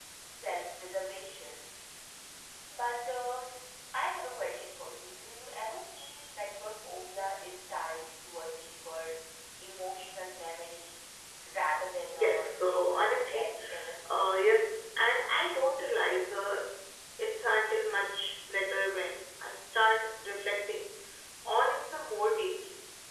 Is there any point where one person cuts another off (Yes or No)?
Yes